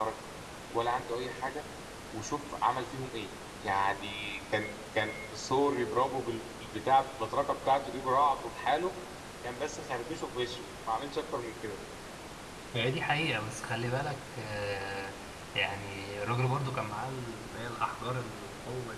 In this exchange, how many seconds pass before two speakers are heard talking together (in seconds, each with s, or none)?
none